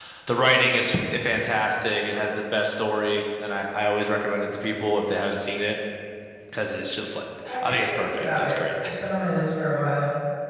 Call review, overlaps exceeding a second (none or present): present